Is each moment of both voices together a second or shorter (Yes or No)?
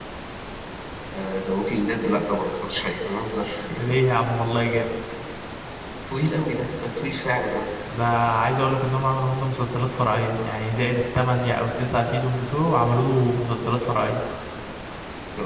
Yes